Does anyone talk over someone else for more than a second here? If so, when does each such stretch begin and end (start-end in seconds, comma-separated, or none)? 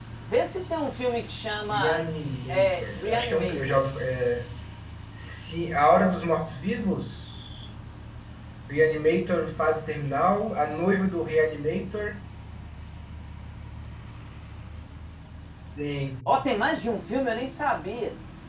2.5-3.8